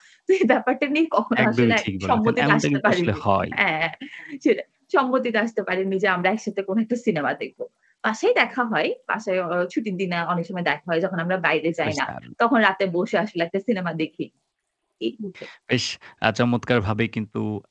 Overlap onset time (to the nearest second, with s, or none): 1 s